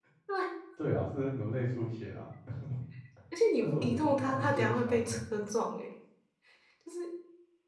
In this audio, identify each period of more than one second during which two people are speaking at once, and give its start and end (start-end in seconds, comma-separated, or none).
3.6-5.2